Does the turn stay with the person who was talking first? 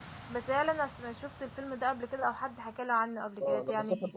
No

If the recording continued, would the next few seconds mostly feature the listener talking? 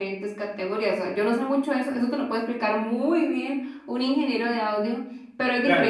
Yes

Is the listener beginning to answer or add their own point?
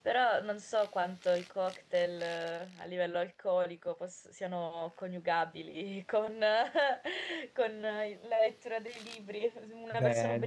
No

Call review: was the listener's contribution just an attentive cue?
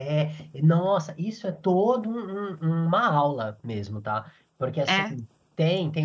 Yes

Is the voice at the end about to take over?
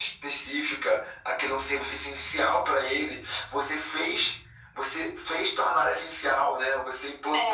No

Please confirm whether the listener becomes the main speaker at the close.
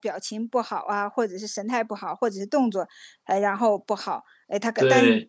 No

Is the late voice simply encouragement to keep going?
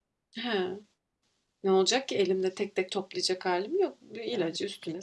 No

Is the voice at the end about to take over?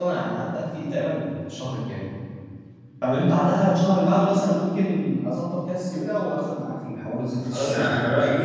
Yes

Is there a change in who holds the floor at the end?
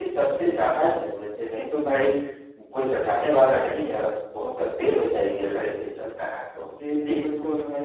Yes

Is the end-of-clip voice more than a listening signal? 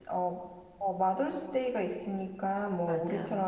No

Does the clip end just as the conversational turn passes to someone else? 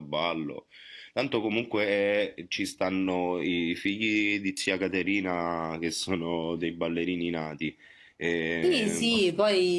Yes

